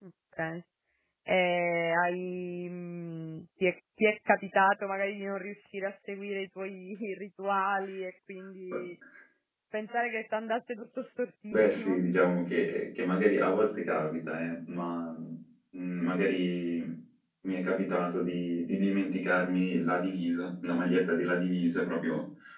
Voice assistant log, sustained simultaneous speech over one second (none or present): none